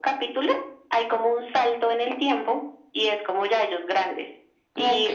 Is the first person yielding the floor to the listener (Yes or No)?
No